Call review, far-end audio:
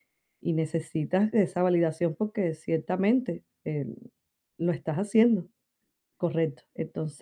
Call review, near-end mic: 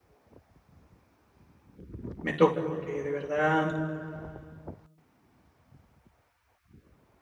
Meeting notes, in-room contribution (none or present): present